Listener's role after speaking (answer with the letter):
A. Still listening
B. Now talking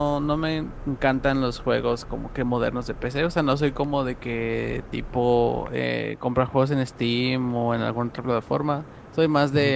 A